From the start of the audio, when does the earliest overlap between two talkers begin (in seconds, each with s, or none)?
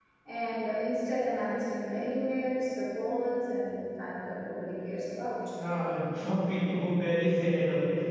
none